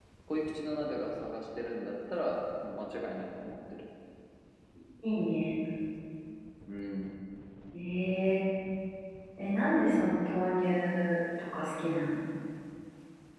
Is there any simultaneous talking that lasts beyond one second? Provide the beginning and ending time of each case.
none

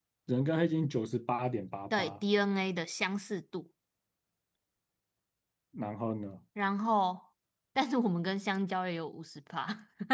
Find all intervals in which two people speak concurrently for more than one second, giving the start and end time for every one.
none

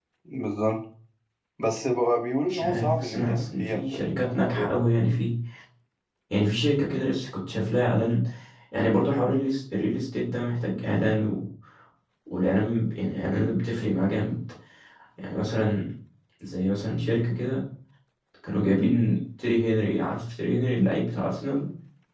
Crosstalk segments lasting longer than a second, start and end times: 2.5-4.8

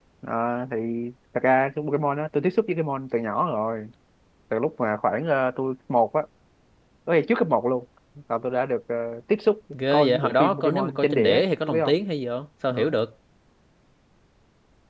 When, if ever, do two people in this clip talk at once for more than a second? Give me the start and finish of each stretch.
9.9-11.9

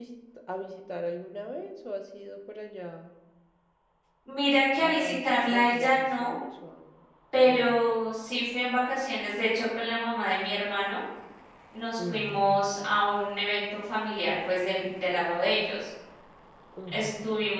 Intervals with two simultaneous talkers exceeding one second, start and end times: 4.8-6.3

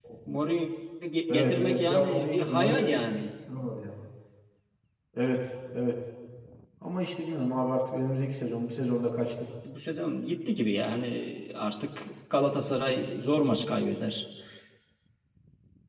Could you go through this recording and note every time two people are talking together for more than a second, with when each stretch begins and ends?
1.3-3.0

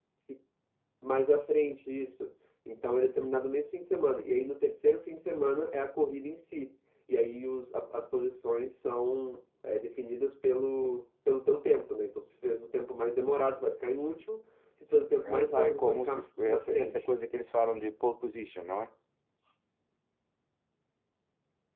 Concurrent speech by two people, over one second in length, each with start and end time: 15.2-17.1

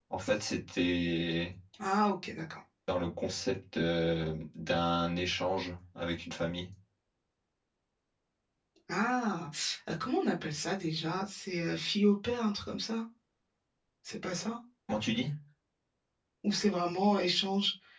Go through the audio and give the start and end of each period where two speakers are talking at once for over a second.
none

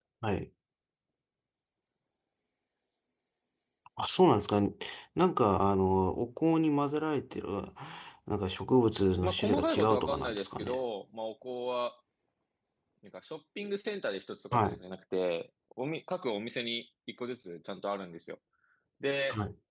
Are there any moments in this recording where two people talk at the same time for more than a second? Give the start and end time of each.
9.2-10.8

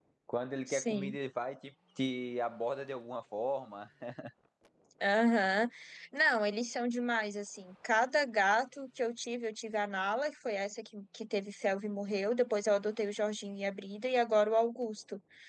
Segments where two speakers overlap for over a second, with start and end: none

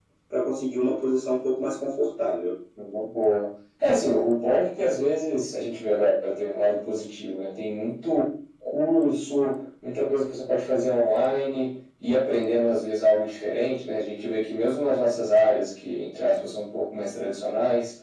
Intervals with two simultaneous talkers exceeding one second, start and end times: none

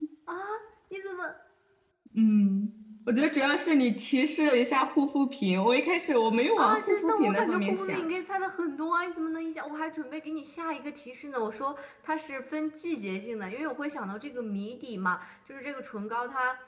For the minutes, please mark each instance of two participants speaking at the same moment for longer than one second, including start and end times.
6.6-8.1

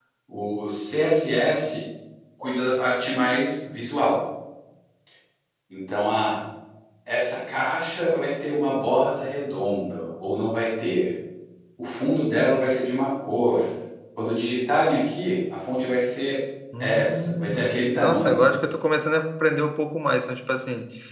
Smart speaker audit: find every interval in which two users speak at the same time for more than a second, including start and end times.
16.8-18.4

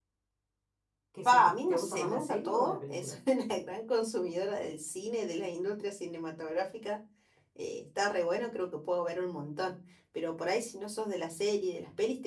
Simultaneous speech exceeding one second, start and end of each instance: 1.2-3.2

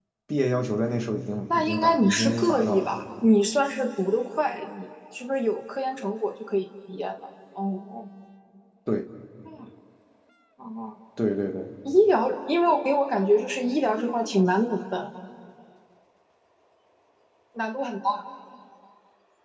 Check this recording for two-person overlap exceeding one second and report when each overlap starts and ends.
1.5-3.0

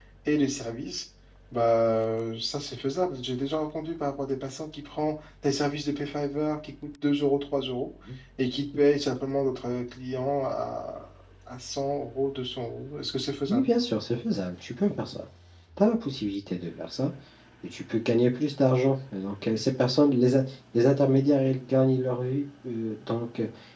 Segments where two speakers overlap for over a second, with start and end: none

